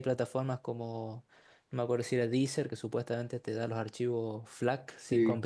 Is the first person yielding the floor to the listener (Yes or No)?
Yes